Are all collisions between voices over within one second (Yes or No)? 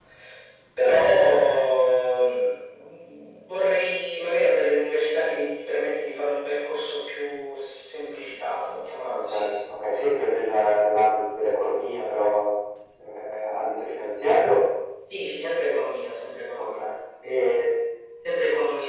Yes